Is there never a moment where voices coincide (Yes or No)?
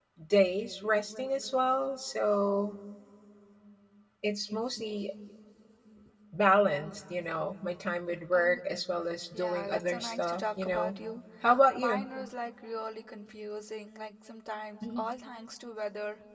No